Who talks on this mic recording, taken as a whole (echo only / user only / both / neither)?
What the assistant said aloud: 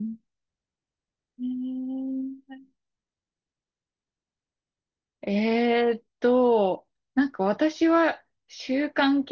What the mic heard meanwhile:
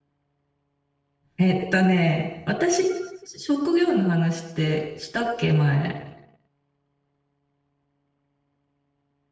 user only